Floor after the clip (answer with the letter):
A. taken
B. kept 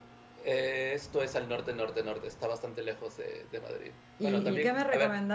A